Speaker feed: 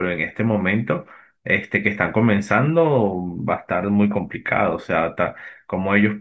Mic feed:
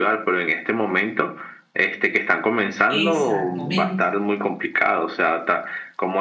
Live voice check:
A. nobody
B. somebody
B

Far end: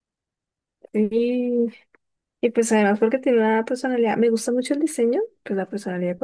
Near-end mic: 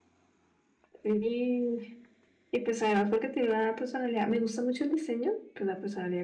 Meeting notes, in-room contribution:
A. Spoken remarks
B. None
B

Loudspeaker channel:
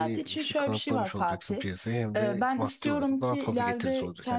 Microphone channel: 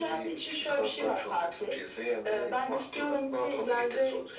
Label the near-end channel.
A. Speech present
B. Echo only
B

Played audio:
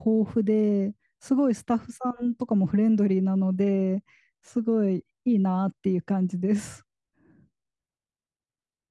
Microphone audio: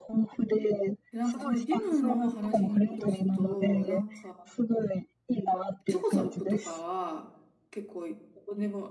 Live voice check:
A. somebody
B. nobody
A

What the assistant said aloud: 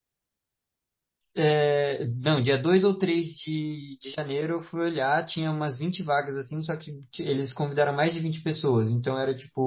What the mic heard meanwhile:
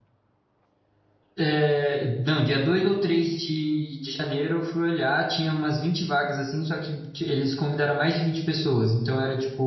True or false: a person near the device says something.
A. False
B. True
A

